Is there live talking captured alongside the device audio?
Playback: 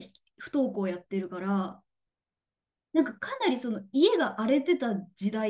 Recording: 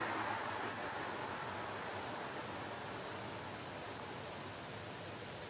No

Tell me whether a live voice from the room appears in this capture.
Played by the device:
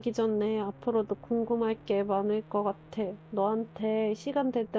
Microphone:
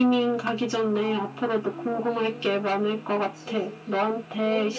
Yes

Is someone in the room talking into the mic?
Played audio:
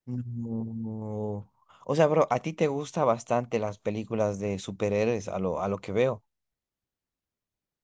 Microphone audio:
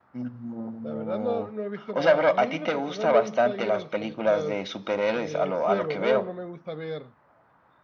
Yes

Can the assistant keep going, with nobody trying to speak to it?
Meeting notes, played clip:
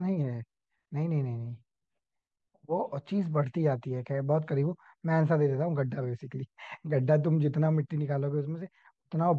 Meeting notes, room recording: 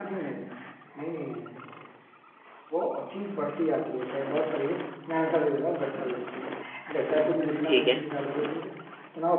No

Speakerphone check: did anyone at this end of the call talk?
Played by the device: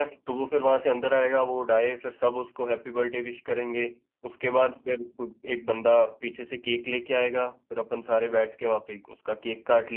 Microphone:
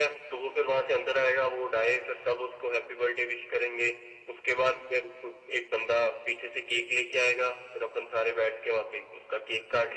No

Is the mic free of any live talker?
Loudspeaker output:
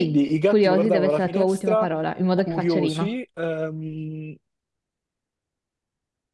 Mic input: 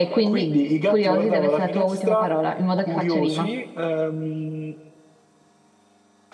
Yes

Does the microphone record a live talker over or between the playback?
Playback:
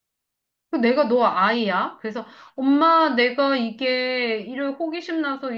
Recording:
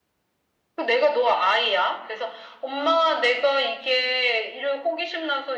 No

